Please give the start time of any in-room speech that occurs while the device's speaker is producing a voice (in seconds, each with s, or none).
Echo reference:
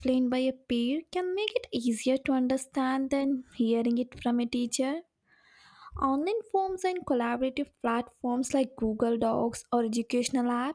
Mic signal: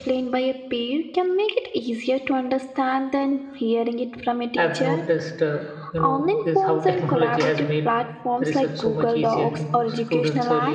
4.6 s